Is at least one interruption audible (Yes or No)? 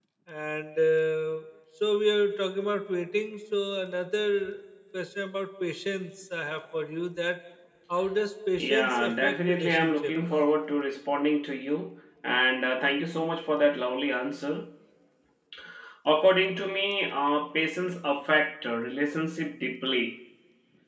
Yes